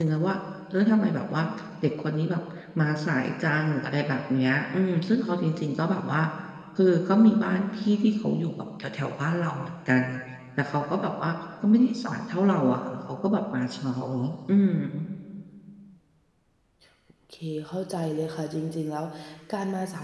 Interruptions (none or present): none